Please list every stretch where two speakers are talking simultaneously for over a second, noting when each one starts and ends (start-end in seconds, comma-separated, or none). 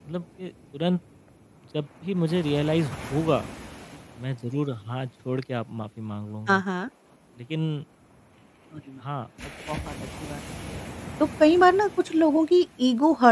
none